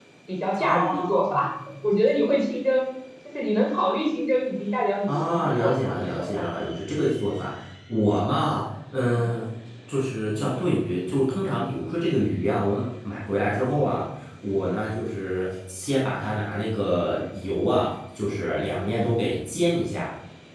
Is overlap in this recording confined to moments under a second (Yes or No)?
No